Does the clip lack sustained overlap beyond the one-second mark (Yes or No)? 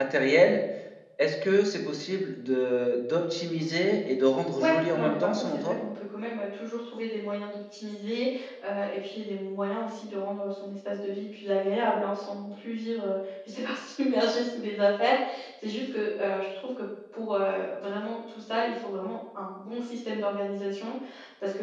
No